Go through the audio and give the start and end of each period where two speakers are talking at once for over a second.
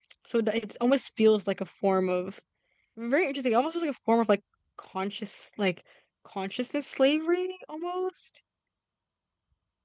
none

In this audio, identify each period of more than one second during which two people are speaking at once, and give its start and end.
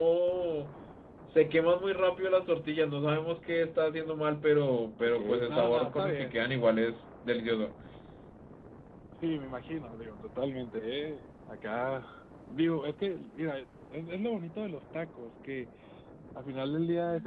5.0-6.3

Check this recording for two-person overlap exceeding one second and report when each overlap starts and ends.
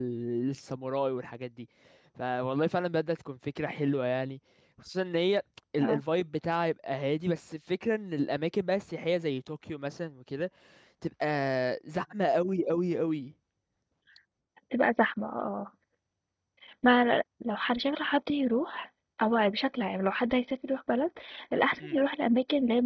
none

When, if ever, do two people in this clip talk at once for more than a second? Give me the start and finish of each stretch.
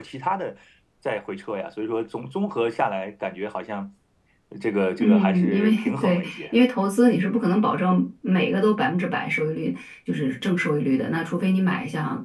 5.0-6.5

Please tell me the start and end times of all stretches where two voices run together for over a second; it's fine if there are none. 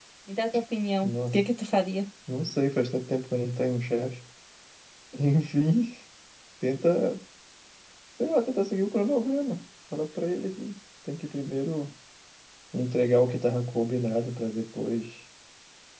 none

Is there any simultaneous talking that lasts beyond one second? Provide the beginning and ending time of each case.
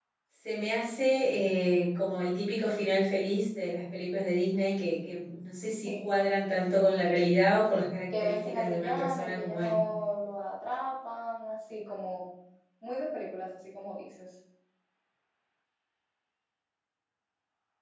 8.1-9.8

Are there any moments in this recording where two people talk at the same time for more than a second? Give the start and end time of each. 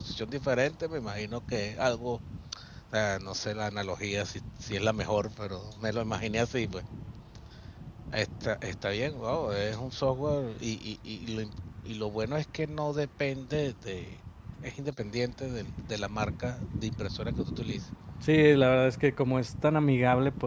none

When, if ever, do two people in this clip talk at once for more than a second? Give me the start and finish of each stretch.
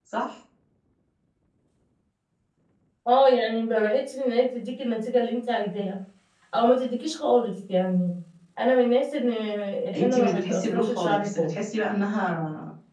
9.9-11.5

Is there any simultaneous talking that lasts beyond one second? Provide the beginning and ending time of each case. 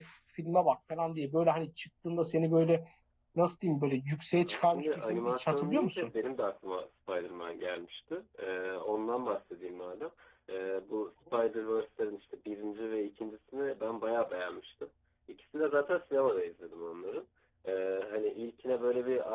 4.5-6.1

